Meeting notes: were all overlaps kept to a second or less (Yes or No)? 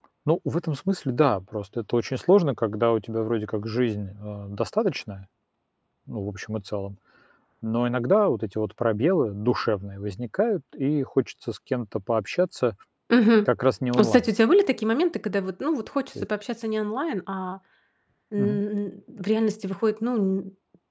Yes